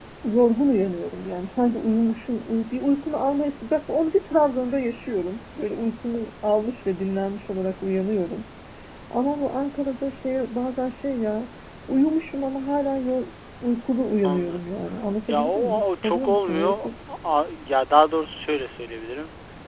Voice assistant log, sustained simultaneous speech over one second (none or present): present